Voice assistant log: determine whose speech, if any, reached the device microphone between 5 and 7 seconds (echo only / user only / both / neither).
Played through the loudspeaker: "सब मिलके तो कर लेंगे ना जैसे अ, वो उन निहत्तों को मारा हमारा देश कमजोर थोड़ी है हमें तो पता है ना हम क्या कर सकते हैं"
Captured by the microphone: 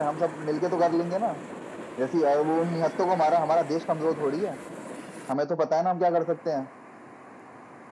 echo only